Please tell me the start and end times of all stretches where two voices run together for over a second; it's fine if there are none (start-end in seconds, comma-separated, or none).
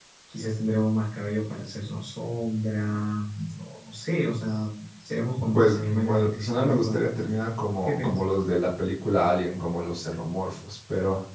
5.5-7.0